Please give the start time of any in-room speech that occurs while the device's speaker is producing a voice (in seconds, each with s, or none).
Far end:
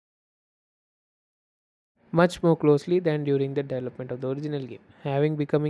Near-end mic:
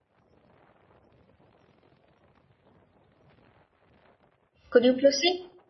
4.7 s